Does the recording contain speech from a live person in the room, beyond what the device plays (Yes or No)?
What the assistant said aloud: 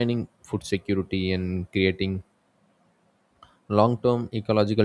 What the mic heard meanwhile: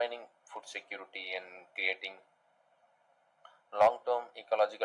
No